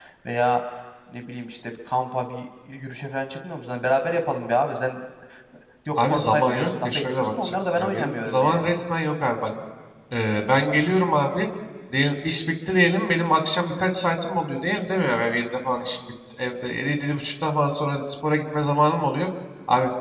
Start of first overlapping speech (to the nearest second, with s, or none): 6 s